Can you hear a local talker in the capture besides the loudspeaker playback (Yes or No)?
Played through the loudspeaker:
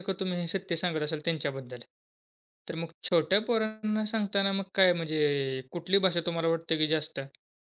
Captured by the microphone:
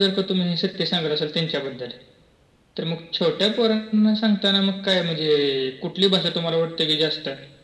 No